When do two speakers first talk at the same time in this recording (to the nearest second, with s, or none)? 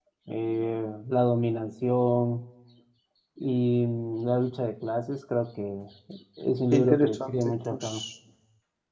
7 s